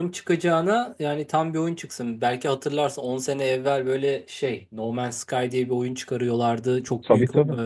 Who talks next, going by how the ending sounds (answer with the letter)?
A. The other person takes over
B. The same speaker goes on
B